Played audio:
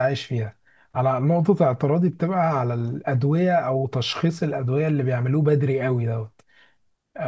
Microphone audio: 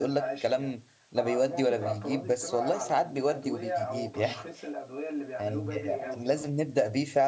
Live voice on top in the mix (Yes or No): Yes